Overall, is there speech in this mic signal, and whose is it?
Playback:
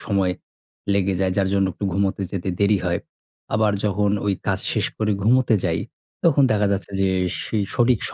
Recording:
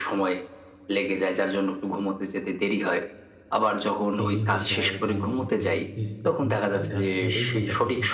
both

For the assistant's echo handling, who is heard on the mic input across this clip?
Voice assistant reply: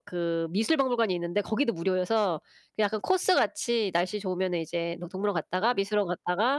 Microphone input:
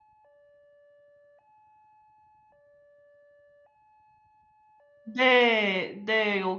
user only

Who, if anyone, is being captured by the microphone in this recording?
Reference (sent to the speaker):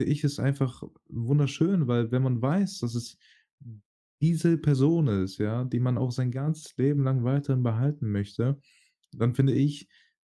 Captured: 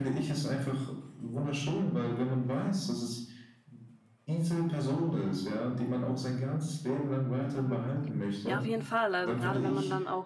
both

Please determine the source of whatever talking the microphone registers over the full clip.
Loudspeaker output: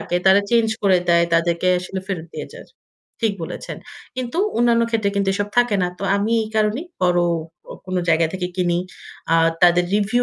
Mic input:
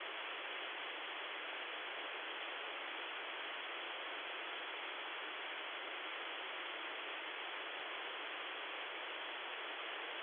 neither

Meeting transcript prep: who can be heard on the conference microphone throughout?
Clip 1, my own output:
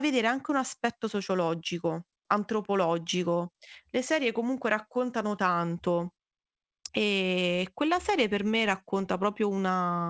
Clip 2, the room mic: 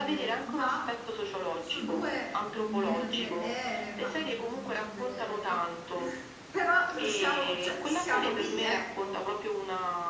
both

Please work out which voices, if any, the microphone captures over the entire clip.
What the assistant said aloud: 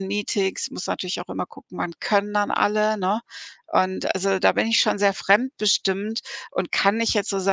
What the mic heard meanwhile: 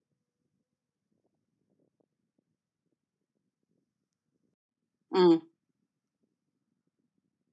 user only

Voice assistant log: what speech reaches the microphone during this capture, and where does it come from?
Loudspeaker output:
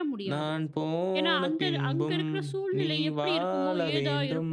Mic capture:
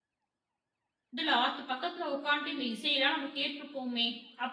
user only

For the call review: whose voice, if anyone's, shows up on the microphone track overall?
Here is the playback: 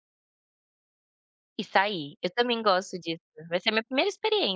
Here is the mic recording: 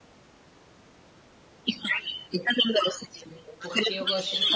both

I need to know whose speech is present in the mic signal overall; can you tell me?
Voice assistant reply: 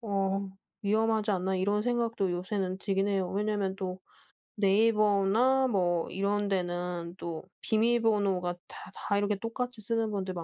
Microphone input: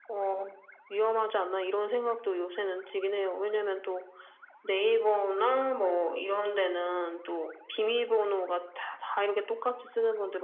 echo only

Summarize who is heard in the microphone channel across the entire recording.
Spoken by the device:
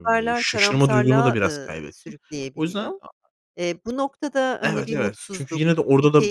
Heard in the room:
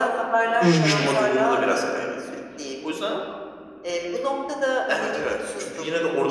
both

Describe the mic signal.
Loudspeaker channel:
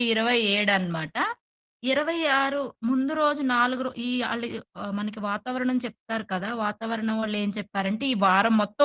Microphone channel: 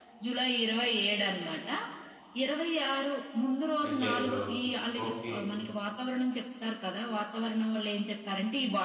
both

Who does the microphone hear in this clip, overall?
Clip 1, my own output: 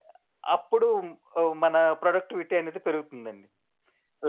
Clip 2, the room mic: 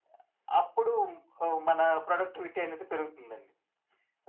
echo only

